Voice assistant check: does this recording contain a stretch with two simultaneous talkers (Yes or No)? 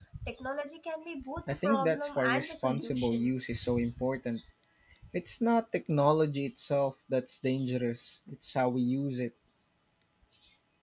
Yes